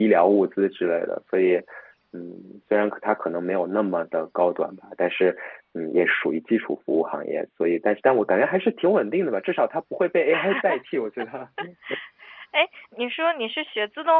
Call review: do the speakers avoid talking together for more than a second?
Yes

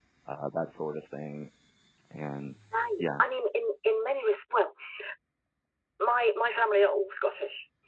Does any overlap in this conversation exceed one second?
No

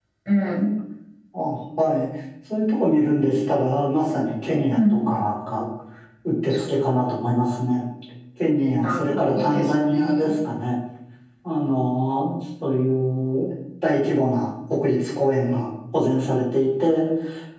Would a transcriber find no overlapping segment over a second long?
No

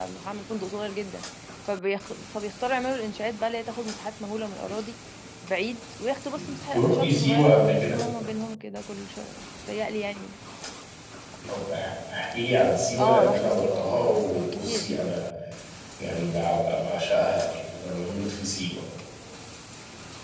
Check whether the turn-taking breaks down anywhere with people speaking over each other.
Yes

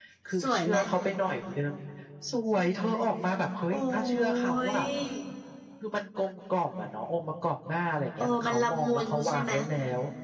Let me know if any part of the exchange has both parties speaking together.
Yes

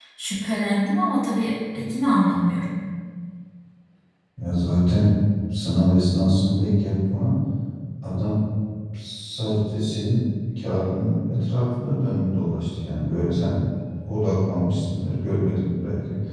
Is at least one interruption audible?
No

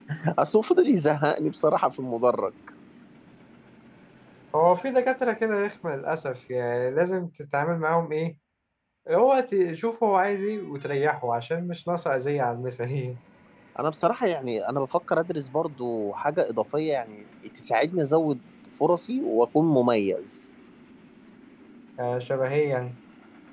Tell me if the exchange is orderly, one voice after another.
Yes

